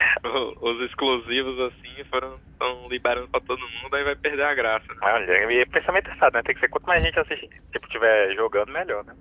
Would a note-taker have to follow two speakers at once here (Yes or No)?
No